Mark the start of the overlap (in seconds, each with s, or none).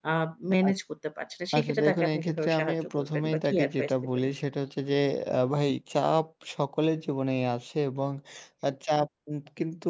1.6 s